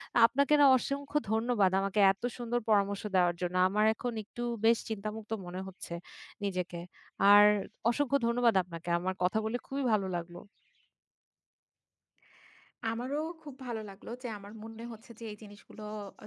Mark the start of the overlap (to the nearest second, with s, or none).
none